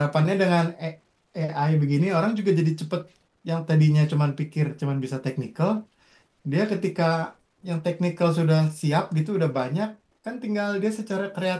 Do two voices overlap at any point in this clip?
No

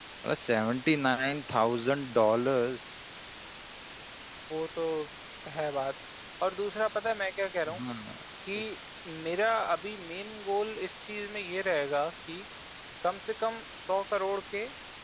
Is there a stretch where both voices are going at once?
No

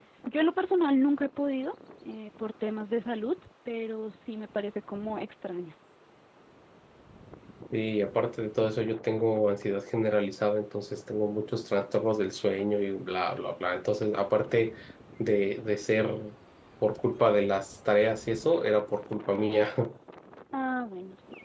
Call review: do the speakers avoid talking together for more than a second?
Yes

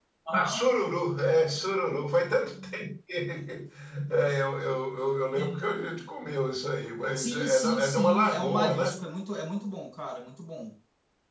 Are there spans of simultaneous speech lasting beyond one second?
Yes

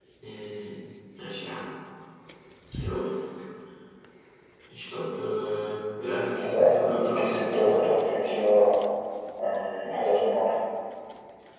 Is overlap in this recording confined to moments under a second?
No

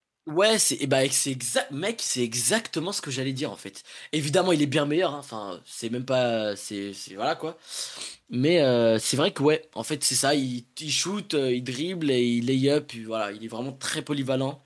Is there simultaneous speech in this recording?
No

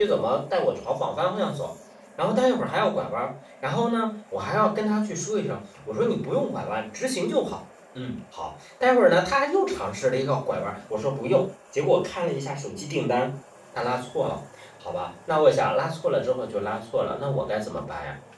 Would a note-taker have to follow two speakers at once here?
No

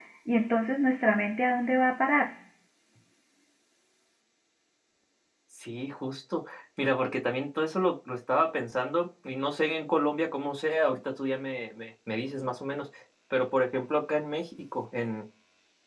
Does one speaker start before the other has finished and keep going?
No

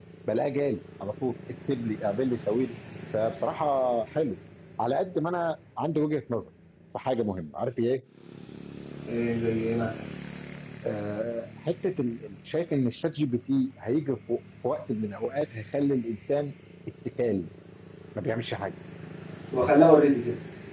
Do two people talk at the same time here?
No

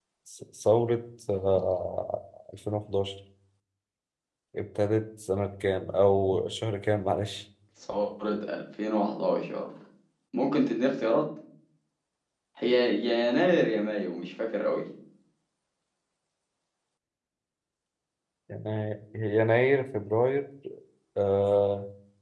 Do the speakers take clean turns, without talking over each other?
Yes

